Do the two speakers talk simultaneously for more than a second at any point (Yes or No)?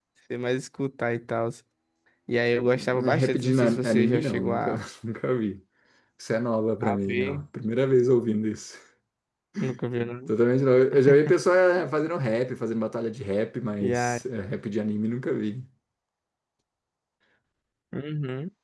Yes